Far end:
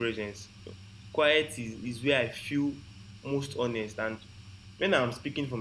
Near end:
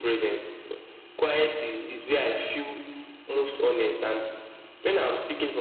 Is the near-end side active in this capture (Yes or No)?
No